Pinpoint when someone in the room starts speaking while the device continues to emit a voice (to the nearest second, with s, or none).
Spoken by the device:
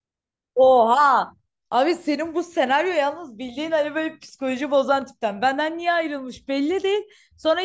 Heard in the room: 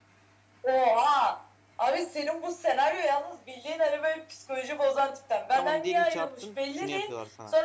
6 s